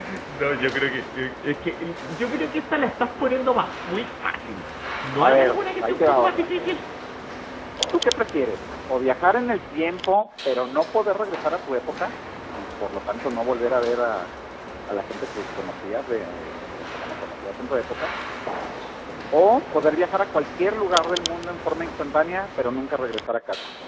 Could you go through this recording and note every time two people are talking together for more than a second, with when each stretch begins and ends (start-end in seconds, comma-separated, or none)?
5.2-6.5